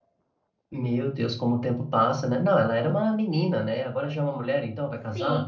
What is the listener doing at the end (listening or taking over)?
taking over